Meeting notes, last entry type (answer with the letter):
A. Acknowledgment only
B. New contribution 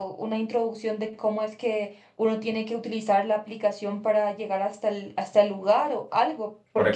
B